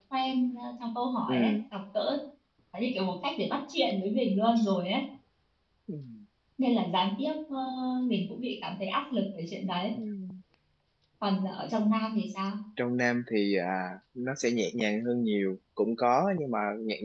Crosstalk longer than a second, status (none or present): none